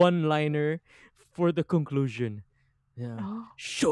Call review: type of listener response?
listening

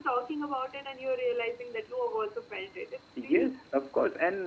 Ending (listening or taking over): taking over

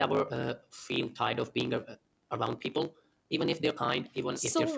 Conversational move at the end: taking over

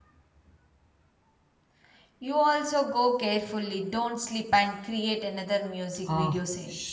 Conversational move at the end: taking over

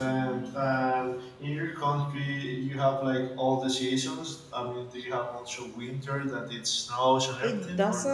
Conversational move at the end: taking over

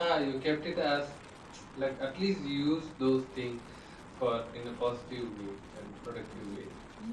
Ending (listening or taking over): taking over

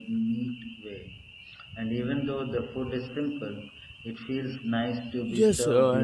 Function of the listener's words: taking over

